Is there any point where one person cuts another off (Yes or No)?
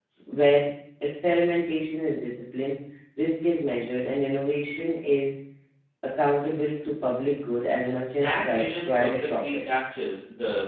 Yes